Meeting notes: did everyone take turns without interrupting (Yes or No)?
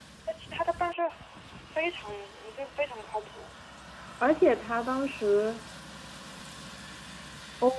Yes